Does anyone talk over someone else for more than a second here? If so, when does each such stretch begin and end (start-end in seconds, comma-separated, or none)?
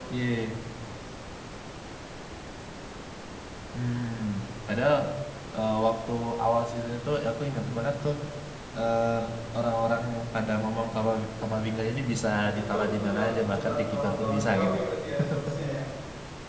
12.5-14.8